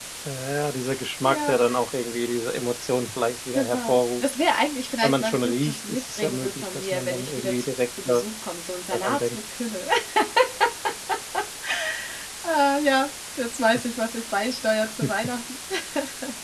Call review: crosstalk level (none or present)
present